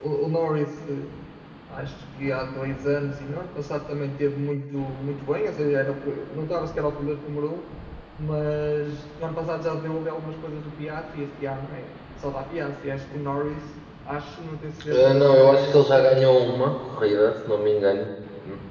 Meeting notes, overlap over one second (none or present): present